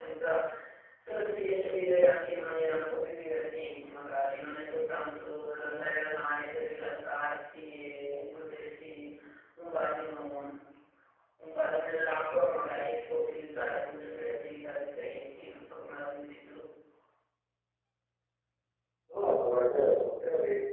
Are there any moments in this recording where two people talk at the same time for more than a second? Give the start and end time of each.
none

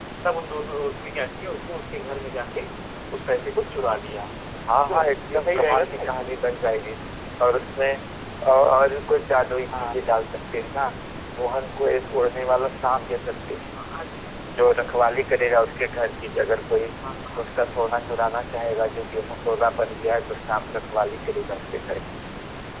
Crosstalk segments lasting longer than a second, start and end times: 4.9-6.3

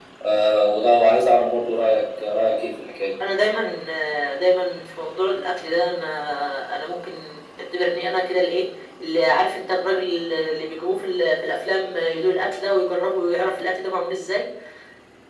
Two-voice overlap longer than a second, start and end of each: none

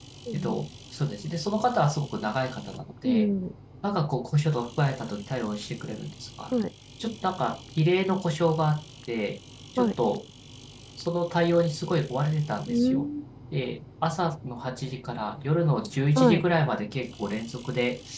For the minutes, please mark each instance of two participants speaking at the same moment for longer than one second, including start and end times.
none

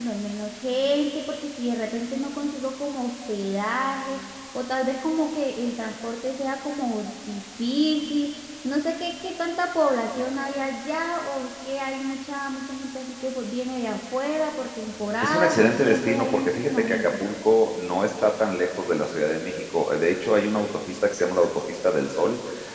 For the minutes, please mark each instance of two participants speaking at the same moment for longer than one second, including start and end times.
15.2-17.1

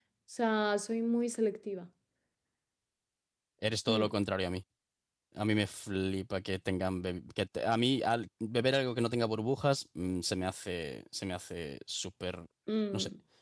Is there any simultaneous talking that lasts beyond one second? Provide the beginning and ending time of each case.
none

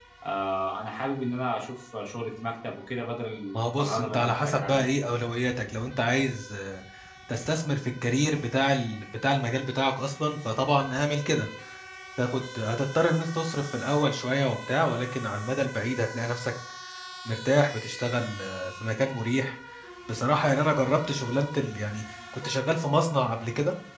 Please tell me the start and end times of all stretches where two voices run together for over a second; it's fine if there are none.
3.5-4.9

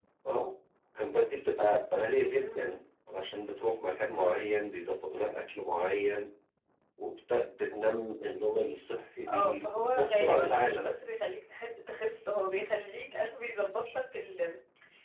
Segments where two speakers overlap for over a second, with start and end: 9.3-10.9

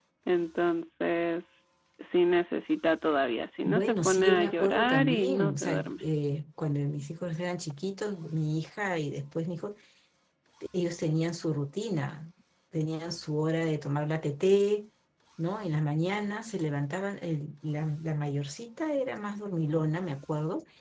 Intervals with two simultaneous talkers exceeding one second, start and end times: 3.6-6.0

